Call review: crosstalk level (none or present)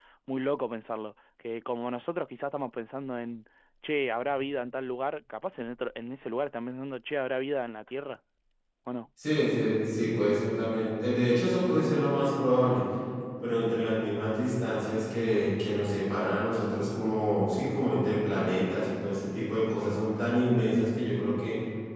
none